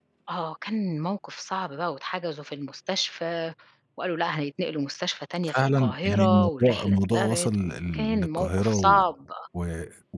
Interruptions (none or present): present